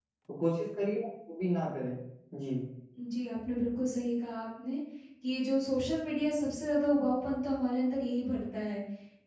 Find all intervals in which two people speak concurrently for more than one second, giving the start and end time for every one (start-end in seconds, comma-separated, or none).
none